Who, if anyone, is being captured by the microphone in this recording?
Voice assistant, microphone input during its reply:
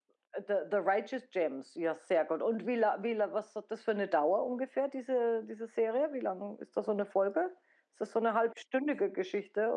user only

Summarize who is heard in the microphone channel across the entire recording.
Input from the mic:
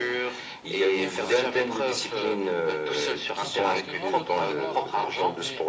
both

